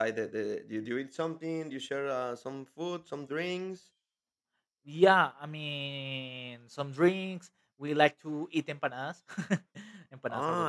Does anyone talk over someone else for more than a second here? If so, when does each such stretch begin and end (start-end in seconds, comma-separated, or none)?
none